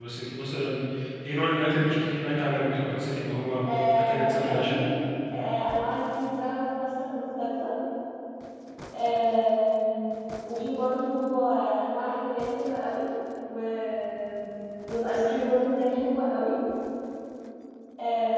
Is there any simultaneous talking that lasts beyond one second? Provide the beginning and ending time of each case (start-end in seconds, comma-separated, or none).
3.7-4.9